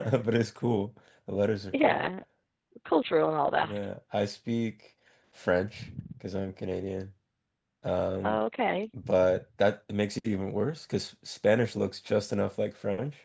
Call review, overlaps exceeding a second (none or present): none